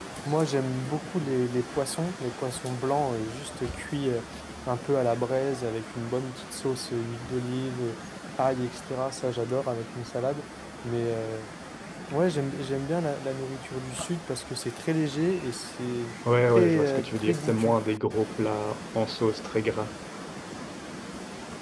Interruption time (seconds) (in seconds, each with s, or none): 16.2 s